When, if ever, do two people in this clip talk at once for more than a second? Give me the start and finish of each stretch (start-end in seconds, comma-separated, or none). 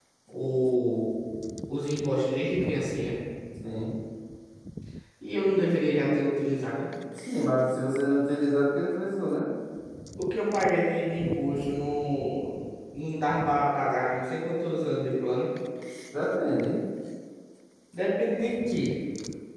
none